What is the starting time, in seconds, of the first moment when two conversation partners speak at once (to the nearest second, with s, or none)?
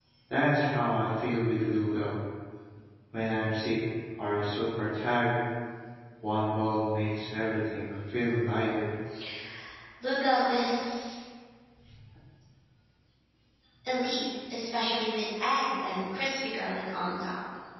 none